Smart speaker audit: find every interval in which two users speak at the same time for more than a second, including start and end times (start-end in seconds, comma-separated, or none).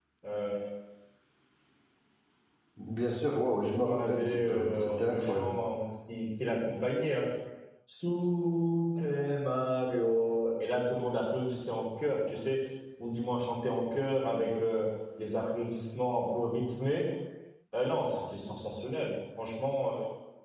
3.5-5.5